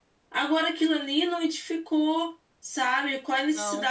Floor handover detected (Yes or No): No